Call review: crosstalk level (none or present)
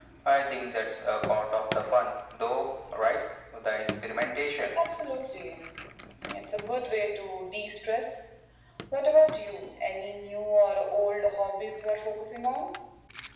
none